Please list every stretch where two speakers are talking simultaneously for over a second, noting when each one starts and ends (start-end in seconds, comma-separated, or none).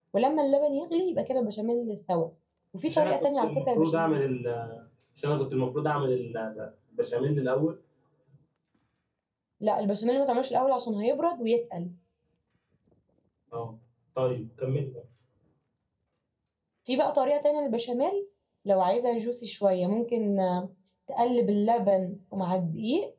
2.9-4.2